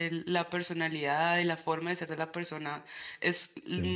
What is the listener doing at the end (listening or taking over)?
listening